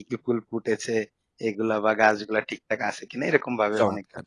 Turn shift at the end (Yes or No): Yes